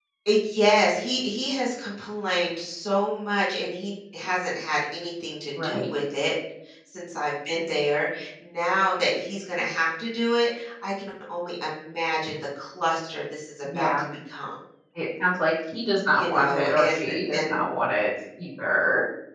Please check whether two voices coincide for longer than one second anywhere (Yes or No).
Yes